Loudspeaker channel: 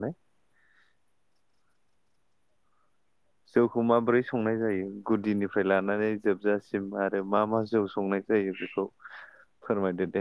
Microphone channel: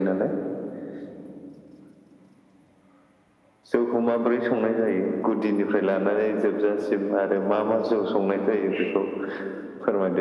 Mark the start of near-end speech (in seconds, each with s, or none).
none